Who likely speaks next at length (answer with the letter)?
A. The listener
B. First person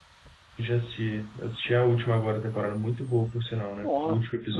A